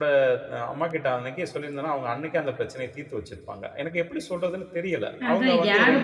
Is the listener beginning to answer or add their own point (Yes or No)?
Yes